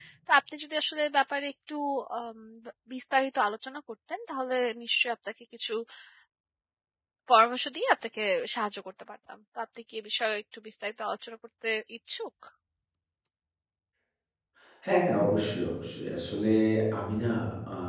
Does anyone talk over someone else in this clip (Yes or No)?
No